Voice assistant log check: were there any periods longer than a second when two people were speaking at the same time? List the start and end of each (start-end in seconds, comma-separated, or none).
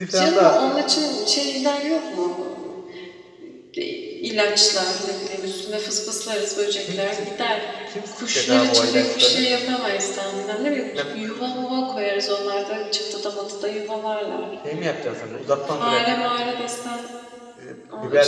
8.1-9.4